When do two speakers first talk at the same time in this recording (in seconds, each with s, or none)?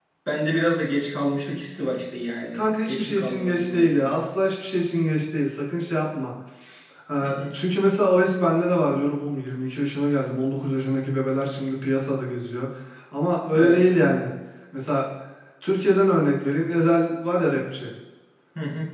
2.5 s